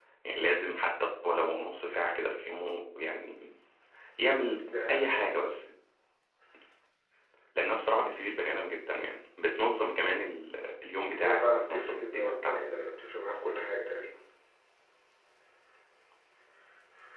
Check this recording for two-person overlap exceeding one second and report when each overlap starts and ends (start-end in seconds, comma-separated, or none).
11.2-12.6